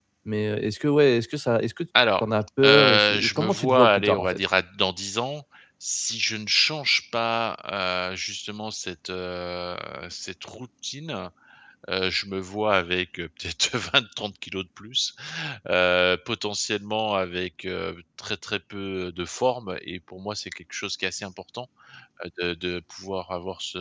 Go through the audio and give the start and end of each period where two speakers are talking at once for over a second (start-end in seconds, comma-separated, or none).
2.6-4.4